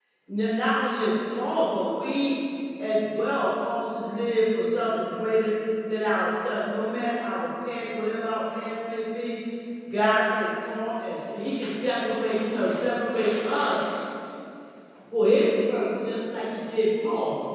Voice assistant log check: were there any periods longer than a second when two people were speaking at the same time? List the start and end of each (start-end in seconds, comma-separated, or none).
none